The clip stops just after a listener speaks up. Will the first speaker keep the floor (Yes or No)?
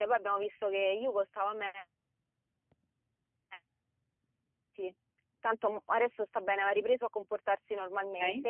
Yes